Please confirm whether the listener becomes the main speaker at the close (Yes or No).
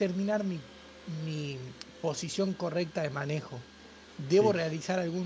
No